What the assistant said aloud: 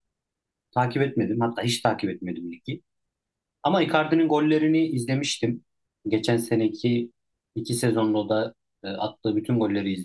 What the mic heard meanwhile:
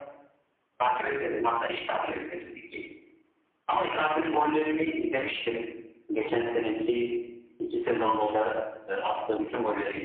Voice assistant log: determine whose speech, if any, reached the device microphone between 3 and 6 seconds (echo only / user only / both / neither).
echo only